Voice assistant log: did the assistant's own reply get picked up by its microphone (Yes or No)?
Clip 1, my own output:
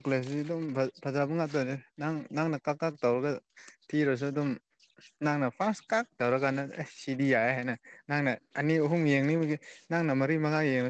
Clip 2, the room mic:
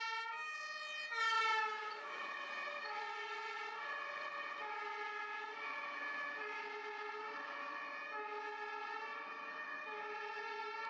No